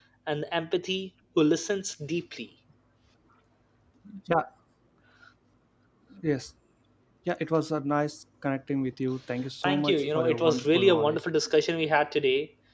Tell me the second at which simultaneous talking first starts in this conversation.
9.4 s

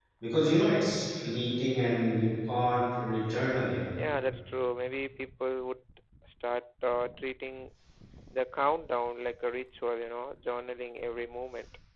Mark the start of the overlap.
none

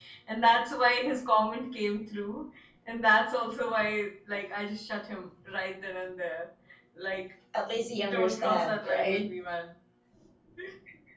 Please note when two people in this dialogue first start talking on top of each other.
8.1 s

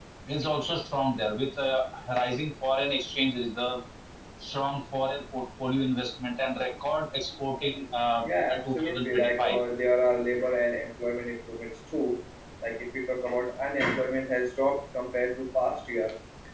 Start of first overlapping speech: 8.2 s

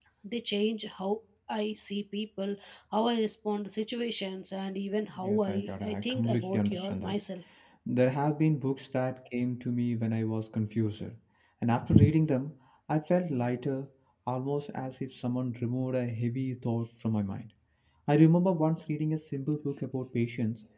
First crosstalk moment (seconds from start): 5.2 s

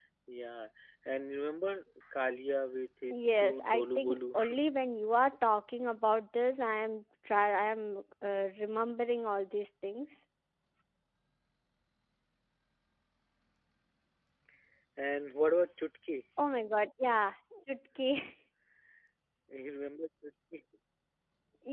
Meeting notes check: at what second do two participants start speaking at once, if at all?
3.1 s

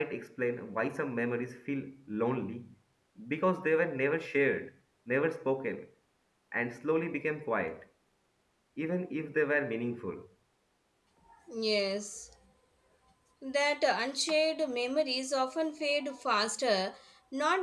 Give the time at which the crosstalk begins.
none

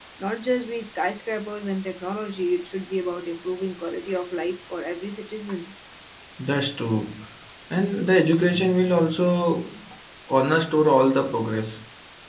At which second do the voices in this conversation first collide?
none

